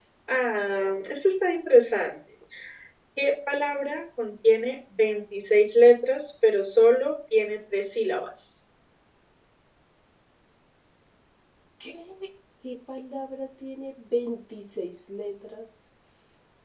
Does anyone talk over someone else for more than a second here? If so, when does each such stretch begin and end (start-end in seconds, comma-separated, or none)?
none